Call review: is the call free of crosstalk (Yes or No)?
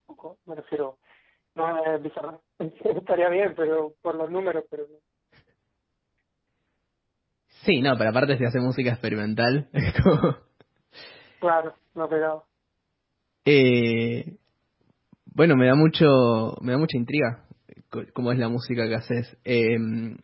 Yes